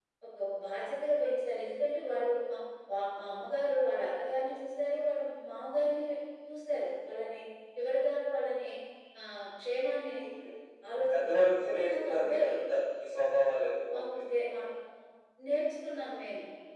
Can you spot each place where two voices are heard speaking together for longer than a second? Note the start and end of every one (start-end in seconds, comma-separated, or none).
11.1-12.5